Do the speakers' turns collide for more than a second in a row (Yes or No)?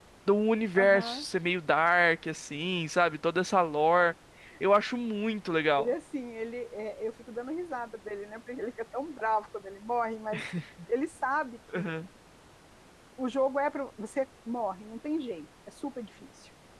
No